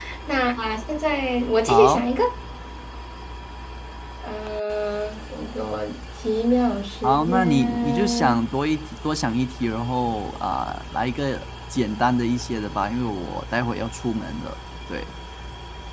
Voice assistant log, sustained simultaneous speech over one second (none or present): present